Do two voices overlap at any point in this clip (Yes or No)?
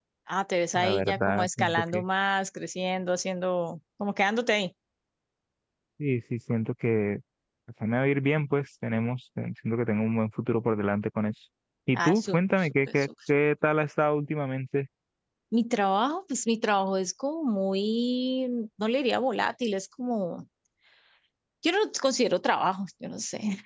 Yes